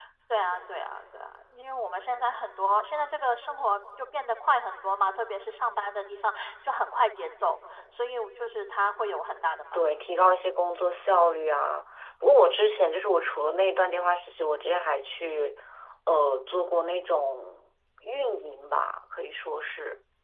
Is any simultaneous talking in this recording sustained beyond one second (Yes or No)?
No